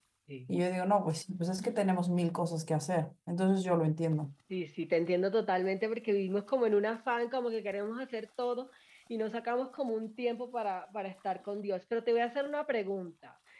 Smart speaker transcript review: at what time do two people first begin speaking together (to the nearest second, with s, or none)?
none